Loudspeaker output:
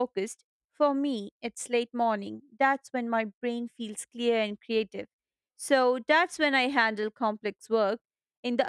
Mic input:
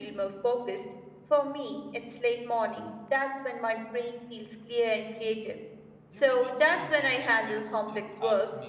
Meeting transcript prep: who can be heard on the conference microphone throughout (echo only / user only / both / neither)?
both